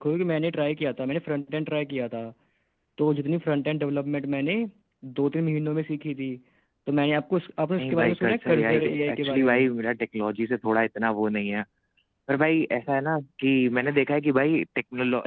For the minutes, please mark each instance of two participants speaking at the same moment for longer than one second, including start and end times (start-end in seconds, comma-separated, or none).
7.8-9.6